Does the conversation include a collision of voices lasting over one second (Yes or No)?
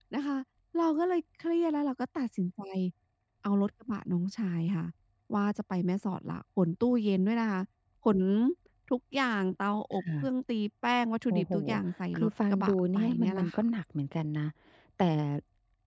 Yes